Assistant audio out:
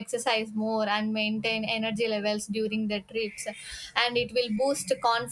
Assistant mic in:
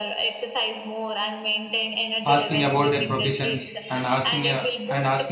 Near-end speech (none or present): present